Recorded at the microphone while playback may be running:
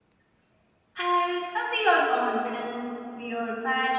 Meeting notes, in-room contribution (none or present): present